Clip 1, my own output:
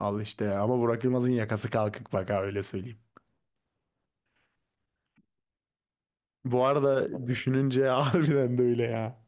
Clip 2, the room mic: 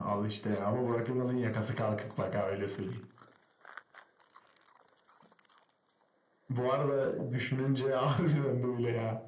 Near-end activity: none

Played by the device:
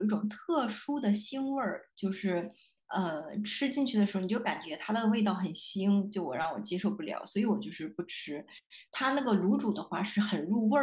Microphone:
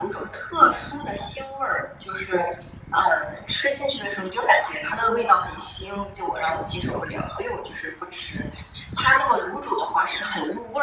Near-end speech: none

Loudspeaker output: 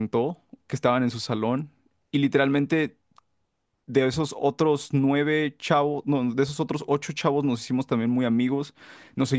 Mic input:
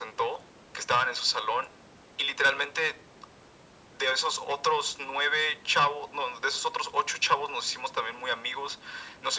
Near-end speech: none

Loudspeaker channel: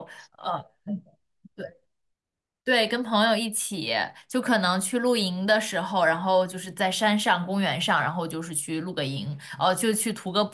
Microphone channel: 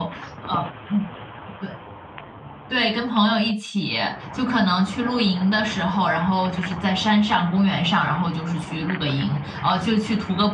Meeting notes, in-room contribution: none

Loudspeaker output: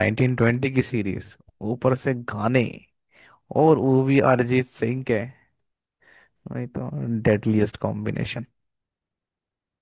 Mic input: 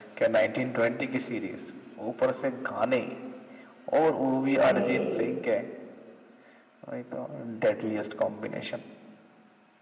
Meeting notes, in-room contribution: present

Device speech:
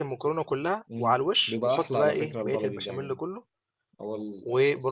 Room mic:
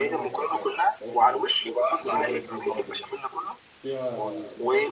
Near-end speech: present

